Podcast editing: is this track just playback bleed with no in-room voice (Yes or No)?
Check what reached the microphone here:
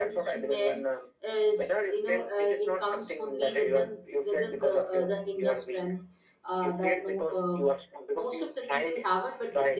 No